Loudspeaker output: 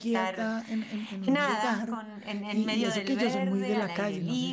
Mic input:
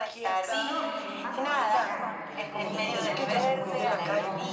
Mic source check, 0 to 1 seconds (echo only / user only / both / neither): both